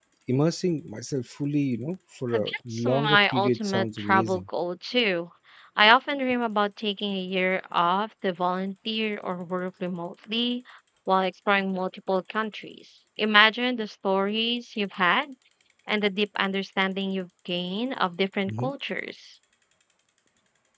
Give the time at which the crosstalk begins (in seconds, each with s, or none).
2.3 s